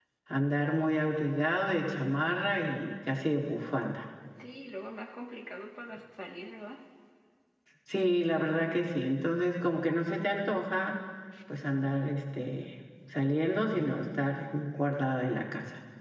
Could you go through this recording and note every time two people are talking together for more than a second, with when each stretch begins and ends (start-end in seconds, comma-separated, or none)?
none